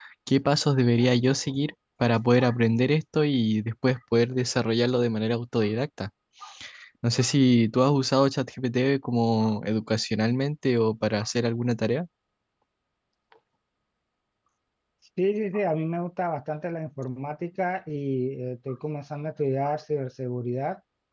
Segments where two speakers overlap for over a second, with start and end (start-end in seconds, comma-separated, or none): none